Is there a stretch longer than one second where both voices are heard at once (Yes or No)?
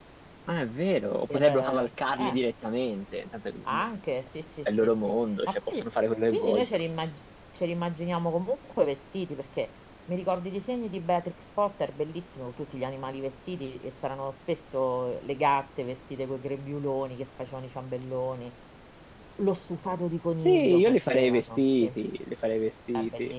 Yes